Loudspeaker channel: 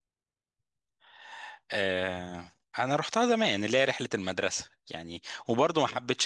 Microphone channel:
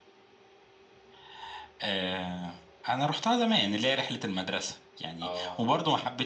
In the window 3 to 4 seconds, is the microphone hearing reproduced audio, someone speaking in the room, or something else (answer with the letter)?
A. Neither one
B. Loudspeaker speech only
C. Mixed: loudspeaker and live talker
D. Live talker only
B